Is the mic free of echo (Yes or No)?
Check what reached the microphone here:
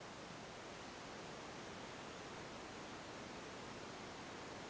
Yes